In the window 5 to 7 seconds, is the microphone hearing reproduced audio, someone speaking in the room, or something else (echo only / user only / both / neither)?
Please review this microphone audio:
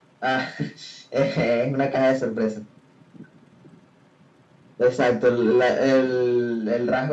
echo only